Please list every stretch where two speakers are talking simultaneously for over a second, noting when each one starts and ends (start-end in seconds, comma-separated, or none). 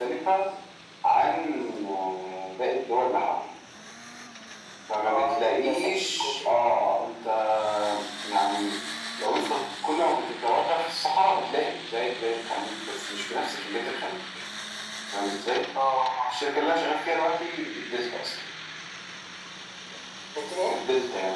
5.1-6.5